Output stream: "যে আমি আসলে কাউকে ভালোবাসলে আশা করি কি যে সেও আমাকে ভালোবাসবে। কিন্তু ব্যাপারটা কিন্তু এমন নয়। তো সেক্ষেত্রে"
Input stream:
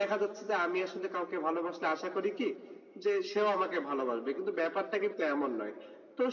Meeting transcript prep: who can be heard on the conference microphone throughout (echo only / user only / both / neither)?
echo only